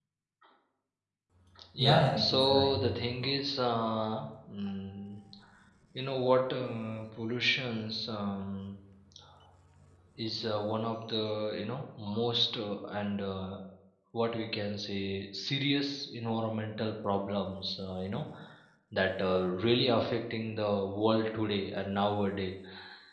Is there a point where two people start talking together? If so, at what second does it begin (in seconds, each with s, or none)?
1.8 s